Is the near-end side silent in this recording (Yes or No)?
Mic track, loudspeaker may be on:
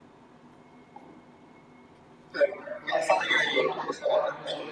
No